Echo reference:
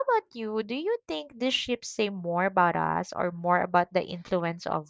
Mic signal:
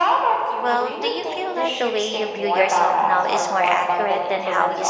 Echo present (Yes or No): Yes